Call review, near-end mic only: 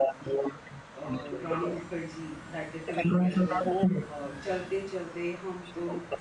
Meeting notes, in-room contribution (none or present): present